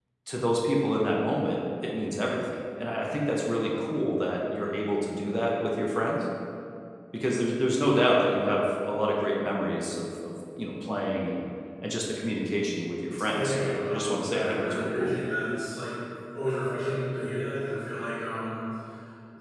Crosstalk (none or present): present